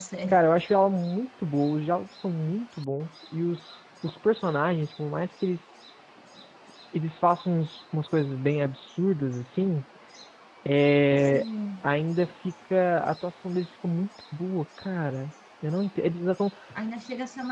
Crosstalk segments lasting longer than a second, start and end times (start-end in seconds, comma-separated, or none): none